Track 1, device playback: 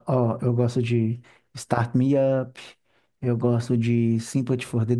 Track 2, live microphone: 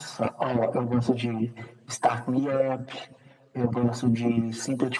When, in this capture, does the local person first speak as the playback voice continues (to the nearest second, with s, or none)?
none